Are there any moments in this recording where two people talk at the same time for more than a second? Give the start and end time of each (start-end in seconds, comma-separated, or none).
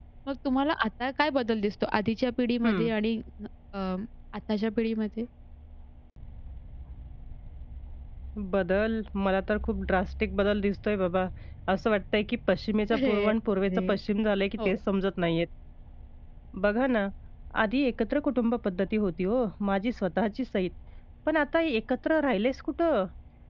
none